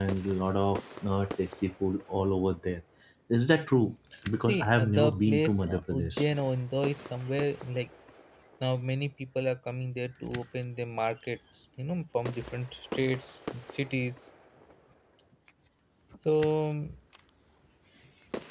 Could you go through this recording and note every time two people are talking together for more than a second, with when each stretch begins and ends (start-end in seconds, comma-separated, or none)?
4.5-6.2